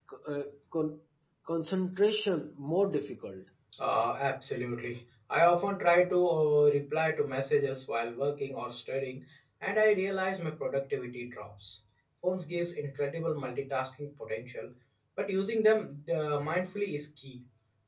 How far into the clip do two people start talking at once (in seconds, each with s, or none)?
none